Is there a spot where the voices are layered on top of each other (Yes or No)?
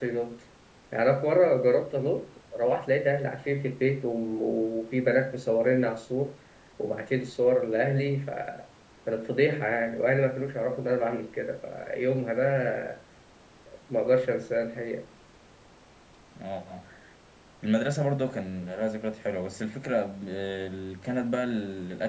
No